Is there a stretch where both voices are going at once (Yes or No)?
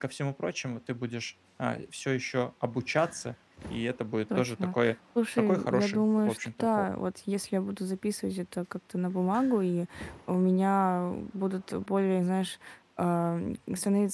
Yes